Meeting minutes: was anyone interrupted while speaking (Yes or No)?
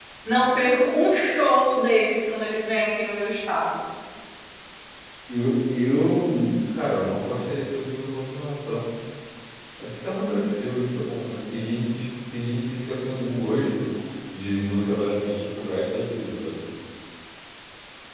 No